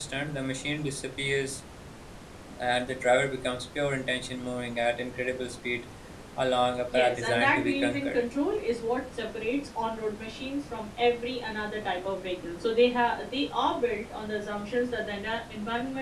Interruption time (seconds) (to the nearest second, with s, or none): 7 s